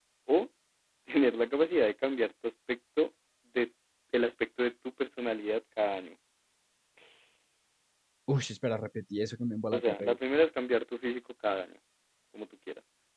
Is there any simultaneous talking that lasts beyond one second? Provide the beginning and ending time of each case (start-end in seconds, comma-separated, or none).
none